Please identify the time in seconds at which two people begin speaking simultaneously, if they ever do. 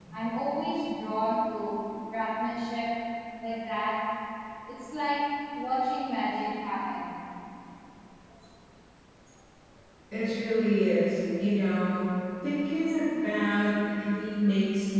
none

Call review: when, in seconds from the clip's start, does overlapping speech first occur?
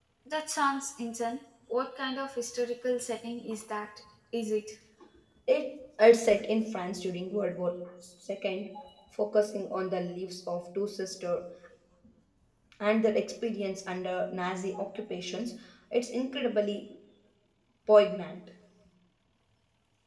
none

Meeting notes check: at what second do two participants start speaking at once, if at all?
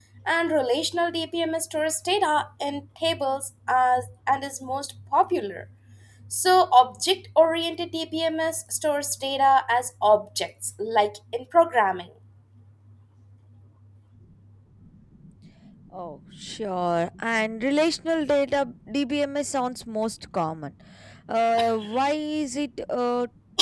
none

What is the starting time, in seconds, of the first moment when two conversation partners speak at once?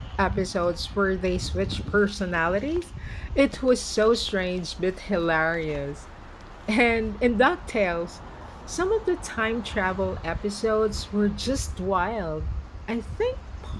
none

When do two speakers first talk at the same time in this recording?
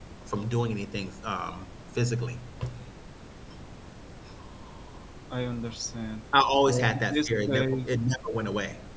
6.7 s

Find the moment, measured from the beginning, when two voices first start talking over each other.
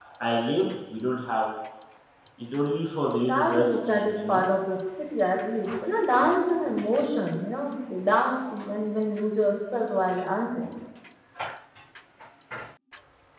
3.2 s

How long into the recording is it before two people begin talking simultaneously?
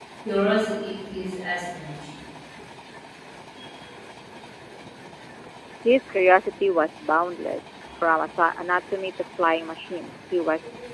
none

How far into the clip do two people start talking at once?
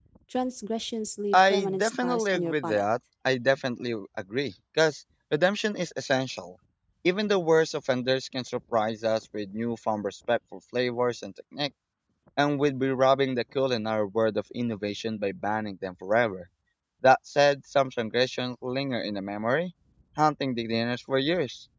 1.3 s

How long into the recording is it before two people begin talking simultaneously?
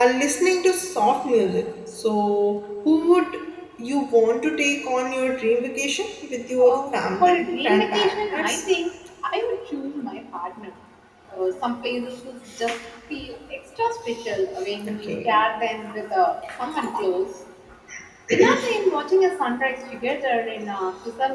6.6 s

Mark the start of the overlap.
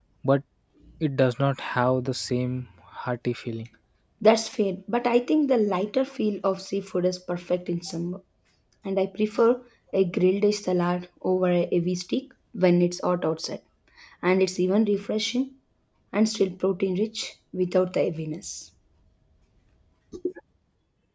none

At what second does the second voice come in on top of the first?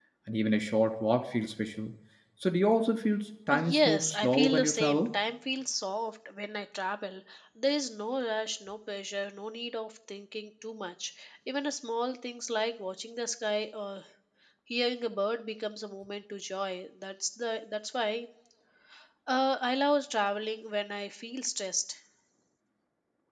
3.5 s

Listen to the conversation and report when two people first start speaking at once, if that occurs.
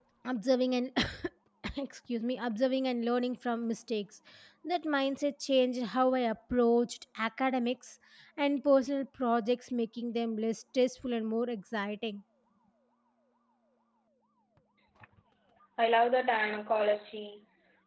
none

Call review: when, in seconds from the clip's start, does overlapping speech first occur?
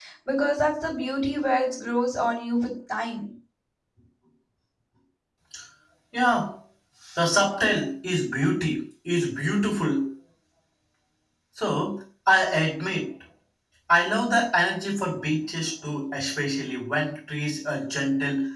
none

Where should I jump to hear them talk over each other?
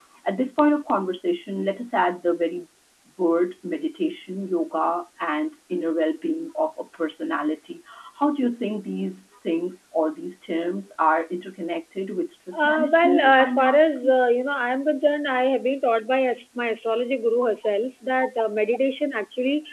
12.5 s

